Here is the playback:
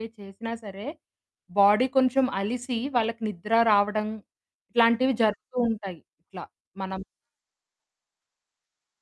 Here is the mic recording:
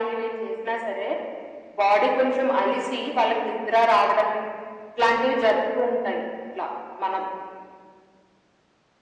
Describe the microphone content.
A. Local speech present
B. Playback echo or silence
B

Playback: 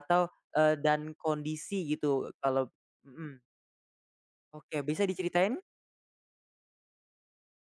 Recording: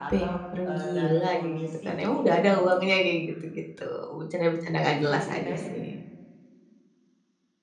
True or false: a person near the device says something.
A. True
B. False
A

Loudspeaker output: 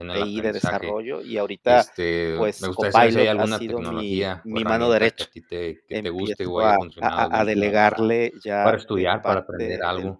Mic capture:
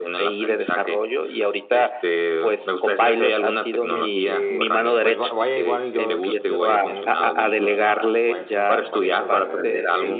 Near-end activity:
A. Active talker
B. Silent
A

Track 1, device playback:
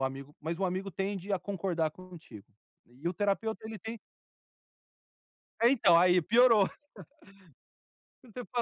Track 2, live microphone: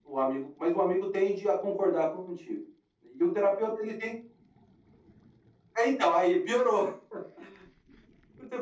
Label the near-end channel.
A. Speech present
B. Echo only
B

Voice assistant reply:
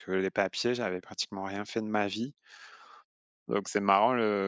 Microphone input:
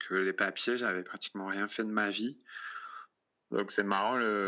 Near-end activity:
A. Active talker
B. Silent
B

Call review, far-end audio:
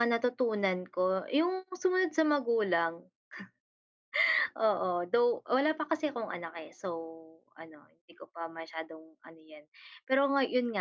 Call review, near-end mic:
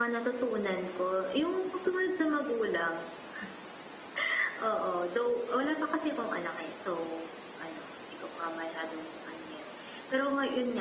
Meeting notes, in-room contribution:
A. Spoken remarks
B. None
B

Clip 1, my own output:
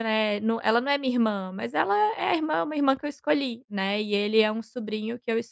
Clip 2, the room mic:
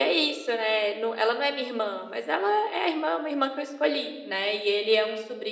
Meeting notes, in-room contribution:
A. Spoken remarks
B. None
B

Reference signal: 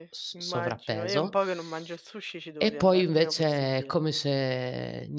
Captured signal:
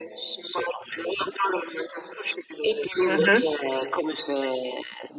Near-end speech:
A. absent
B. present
B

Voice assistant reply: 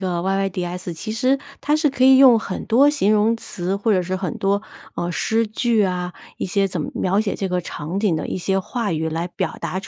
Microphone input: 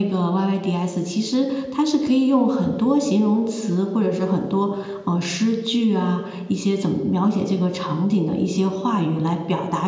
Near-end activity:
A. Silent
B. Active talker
A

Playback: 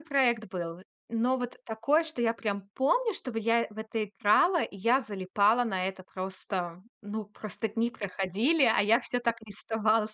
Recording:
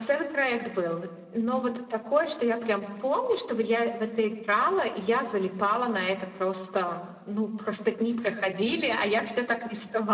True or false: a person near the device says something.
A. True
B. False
B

